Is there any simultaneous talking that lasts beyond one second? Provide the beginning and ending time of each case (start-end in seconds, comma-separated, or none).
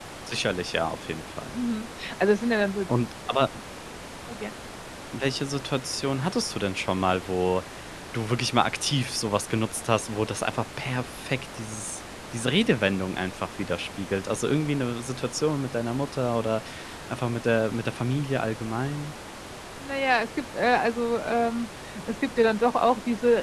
none